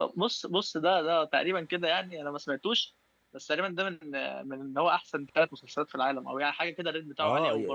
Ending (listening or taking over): taking over